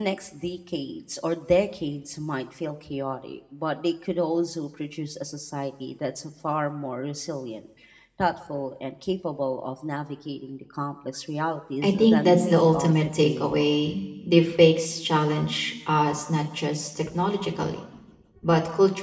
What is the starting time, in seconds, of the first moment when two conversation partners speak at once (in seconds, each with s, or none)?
11.8 s